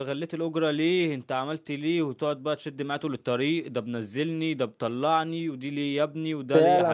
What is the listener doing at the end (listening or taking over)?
taking over